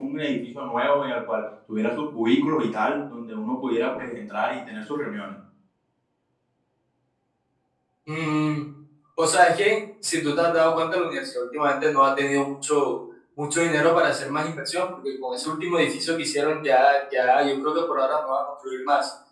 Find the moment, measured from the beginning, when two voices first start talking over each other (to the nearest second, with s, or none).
none